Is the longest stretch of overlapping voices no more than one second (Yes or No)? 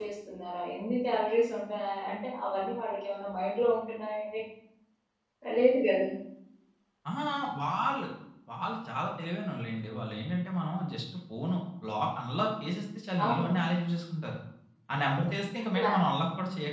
Yes